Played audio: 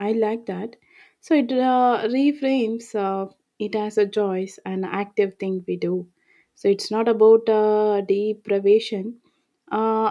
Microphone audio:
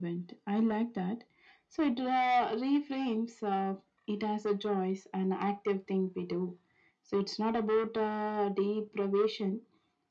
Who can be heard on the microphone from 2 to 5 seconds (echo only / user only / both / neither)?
echo only